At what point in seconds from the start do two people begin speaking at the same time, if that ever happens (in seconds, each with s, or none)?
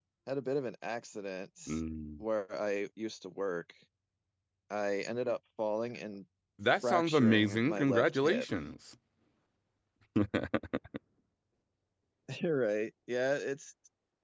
6.6 s